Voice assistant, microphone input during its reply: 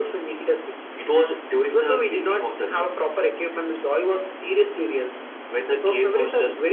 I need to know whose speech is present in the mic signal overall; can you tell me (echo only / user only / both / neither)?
echo only